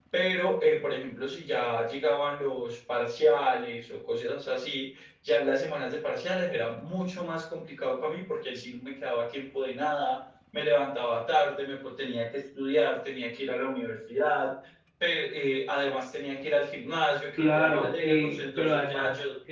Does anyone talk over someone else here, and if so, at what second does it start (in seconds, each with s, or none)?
17.4 s